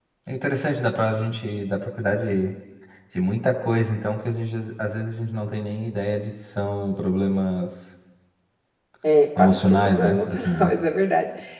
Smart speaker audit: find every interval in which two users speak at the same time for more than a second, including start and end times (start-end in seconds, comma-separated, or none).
9.4-10.7